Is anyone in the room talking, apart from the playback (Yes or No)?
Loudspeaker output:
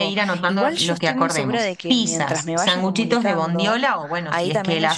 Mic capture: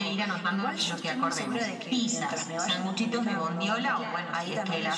Yes